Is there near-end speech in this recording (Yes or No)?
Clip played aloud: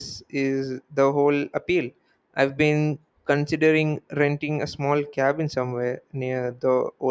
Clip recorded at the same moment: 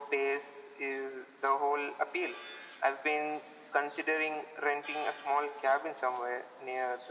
No